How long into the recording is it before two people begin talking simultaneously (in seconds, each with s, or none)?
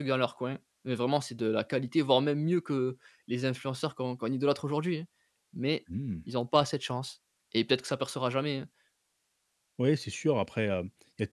none